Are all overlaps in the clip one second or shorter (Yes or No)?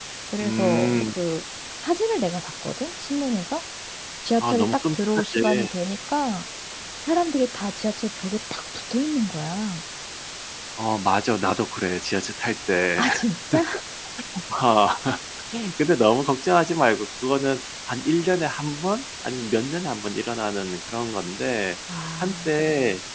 No